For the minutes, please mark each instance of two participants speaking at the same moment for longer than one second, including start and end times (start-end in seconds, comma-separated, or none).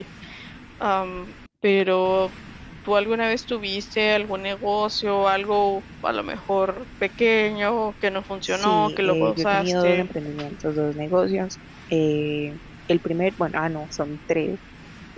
8.4-10.1